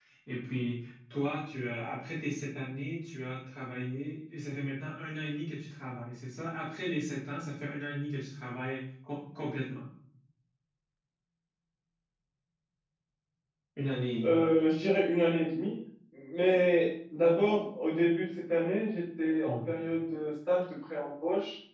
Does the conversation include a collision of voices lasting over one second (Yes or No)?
No